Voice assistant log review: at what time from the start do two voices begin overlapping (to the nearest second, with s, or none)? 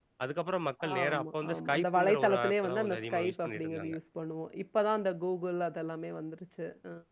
1 s